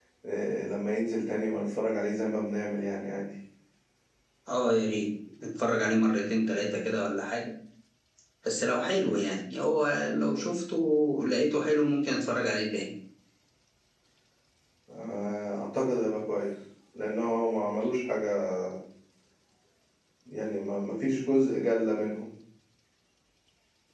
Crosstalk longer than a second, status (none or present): none